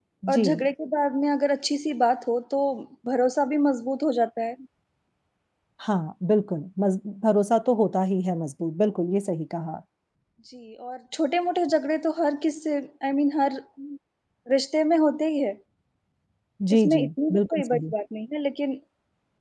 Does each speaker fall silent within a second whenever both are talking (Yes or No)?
No